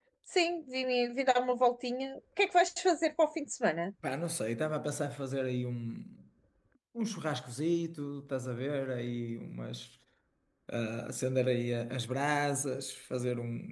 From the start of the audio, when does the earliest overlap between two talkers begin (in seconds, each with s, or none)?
none